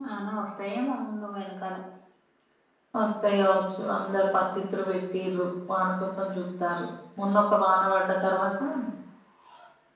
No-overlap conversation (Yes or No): Yes